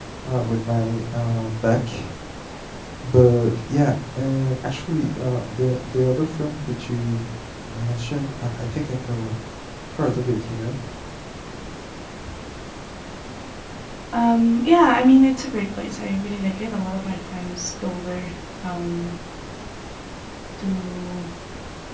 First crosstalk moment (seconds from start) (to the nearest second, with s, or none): none